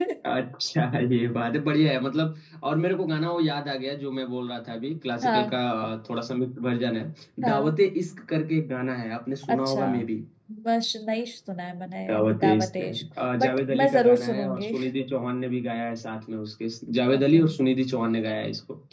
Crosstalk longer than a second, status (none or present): present